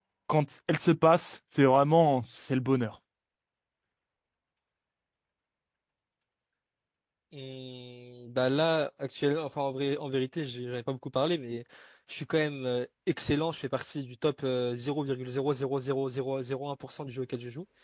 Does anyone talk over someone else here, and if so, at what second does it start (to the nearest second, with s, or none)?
none